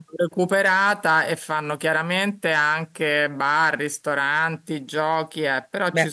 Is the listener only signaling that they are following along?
Yes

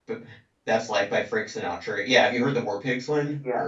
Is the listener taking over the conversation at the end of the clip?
Yes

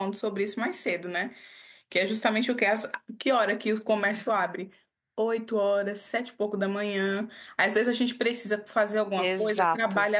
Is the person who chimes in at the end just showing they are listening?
Yes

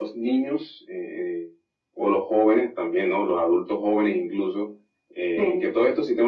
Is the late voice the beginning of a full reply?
No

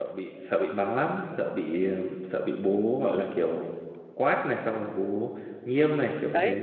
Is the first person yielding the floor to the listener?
Yes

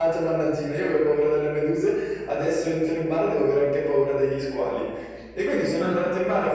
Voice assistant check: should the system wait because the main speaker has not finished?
Yes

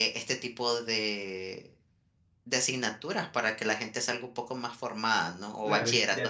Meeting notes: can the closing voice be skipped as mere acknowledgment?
No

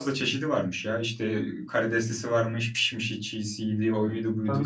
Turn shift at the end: No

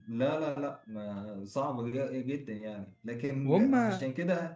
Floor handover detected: No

